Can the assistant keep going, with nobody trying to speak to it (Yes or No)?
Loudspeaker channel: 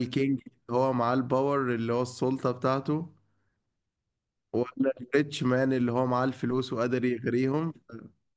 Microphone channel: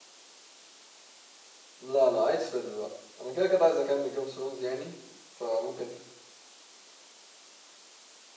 No